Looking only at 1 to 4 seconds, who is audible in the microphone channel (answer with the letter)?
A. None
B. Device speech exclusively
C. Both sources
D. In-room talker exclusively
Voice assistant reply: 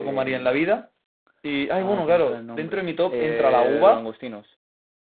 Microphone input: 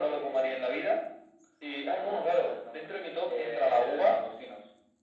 B